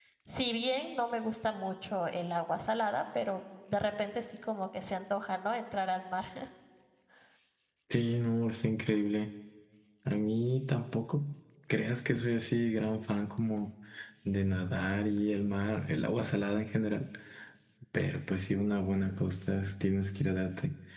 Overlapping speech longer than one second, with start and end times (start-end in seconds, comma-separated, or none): none